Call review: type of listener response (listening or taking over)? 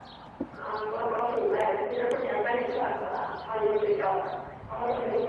listening